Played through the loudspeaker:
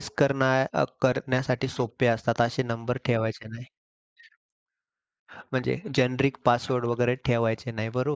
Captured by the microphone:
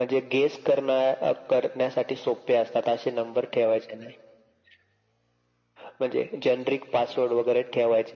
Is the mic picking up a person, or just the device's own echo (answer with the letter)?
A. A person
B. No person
B